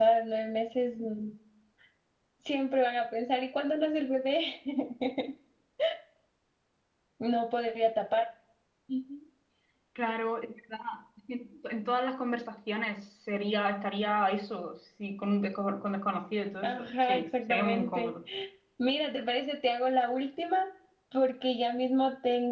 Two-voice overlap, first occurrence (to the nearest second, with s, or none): 17 s